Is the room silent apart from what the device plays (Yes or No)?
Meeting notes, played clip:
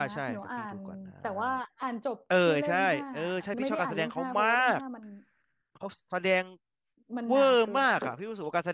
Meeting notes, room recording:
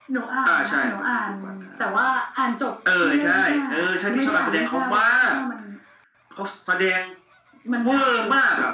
Yes